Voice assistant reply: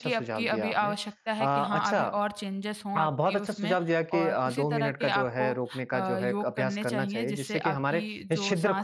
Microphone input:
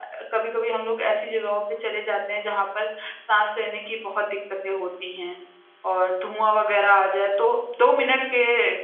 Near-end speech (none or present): present